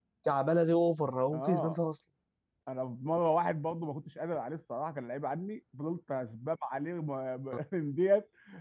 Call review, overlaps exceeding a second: none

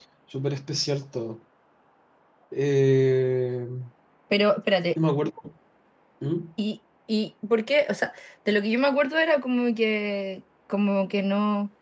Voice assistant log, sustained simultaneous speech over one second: none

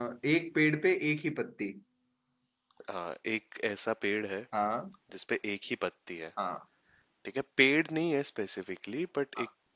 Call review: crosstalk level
none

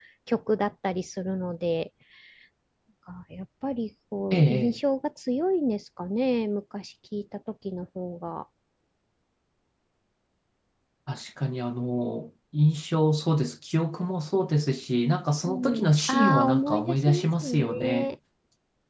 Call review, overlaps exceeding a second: present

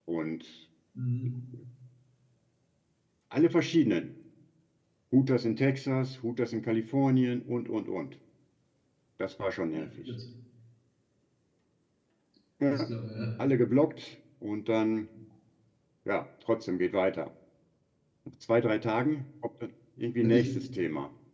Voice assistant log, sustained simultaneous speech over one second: none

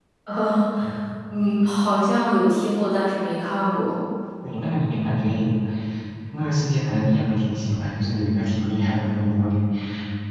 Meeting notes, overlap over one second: none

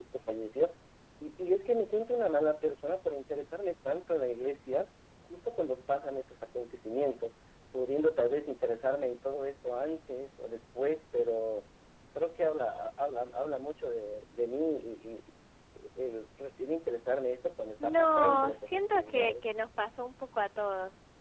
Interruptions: present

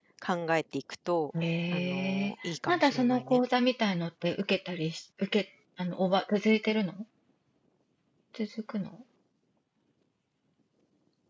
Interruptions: present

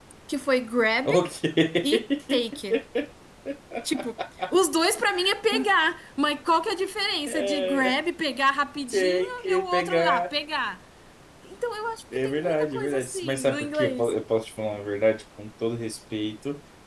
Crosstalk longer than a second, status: present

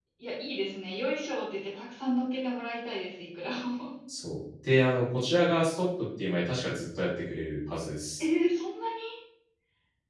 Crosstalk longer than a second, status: none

